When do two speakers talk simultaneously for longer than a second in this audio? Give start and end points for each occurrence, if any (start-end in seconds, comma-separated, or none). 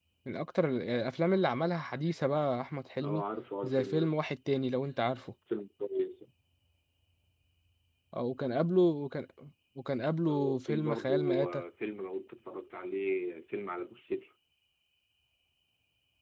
10.2-11.6